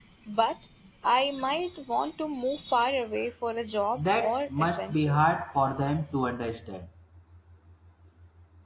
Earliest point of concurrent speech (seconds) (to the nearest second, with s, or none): 4 s